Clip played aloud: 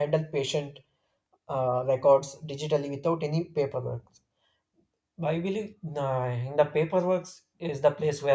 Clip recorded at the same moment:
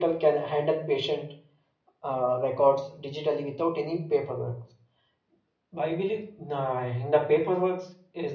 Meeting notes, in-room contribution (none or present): none